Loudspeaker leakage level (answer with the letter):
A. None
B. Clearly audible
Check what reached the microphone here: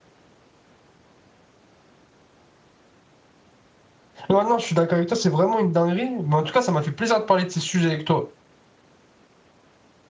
A